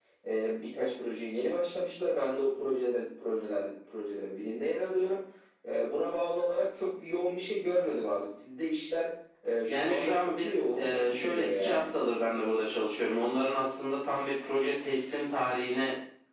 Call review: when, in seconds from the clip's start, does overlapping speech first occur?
9.6 s

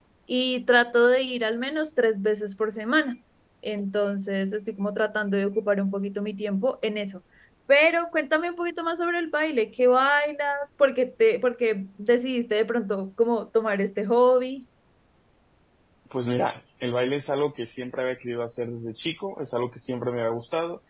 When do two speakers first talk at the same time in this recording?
none

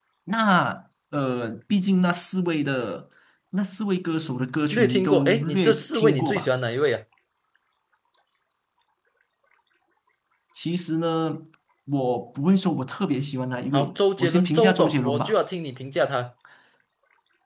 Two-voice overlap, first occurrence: 4.7 s

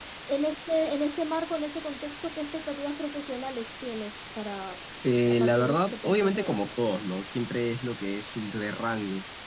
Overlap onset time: 5.3 s

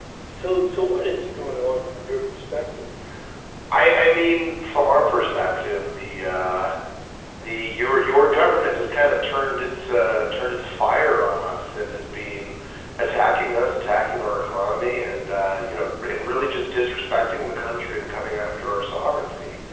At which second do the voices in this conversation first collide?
none

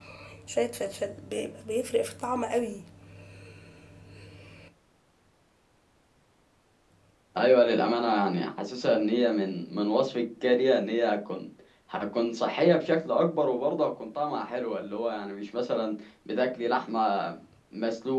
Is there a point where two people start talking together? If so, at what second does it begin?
none

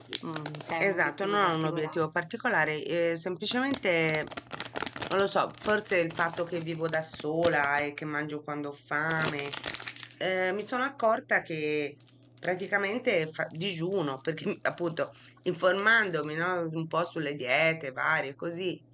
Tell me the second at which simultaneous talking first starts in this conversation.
0.8 s

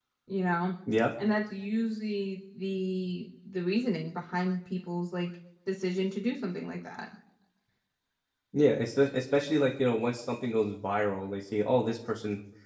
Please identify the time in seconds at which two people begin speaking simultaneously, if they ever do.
none

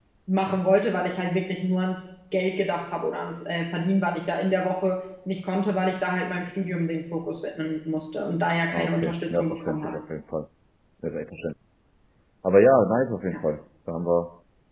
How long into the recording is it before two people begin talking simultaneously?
8.7 s

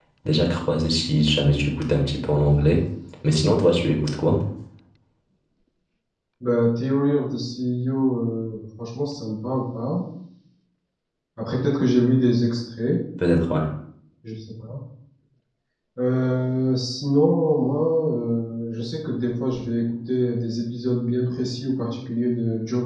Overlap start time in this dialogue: none

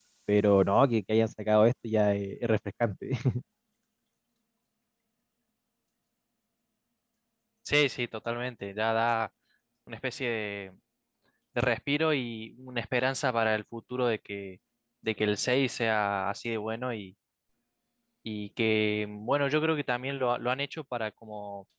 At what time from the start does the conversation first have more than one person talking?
none

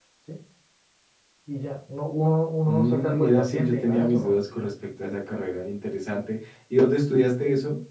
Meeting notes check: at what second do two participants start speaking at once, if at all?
2.6 s

